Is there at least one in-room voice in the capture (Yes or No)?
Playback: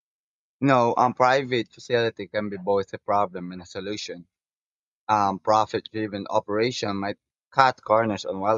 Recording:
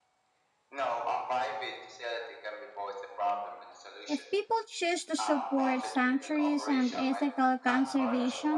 Yes